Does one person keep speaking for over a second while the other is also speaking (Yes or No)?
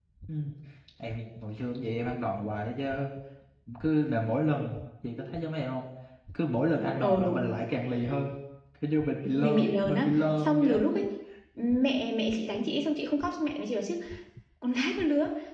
Yes